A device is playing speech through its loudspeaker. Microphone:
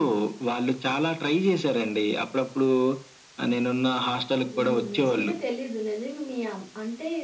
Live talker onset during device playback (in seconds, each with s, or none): 4.5 s